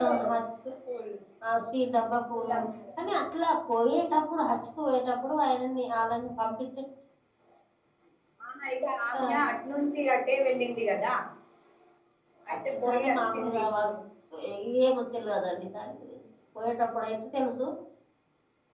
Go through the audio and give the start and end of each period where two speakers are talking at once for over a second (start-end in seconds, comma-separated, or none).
12.5-13.9